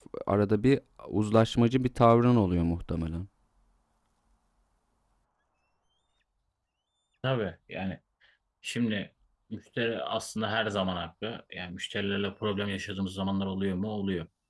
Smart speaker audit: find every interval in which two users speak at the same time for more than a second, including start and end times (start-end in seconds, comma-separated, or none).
none